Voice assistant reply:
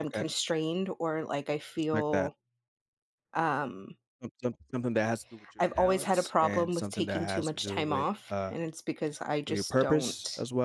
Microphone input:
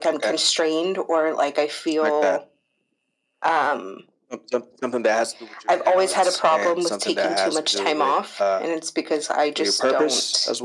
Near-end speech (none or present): none